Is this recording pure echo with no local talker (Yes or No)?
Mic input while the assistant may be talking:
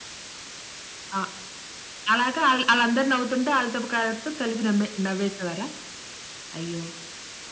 Yes